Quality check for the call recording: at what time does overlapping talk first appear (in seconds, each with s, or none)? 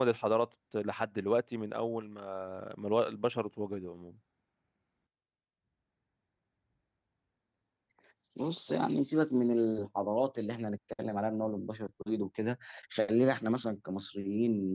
none